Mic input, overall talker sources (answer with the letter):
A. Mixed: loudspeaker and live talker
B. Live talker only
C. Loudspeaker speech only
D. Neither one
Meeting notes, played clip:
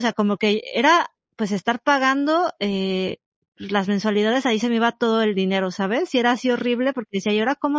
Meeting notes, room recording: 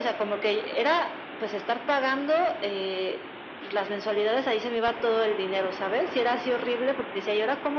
C